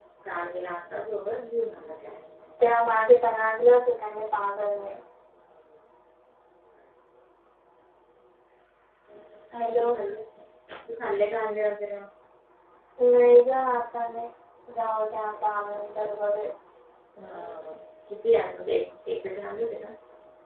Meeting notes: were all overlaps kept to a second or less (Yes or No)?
Yes